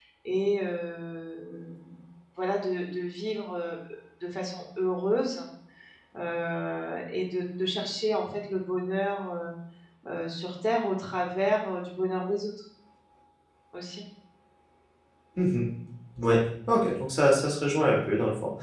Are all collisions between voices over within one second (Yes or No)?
Yes